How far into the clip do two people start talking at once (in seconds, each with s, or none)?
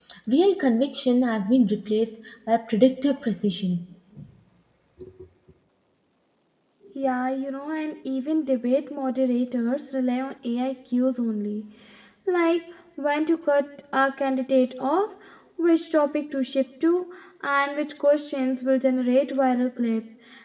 none